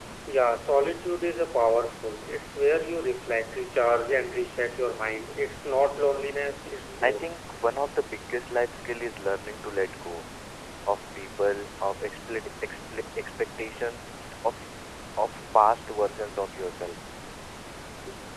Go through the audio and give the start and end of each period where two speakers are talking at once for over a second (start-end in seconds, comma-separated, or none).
none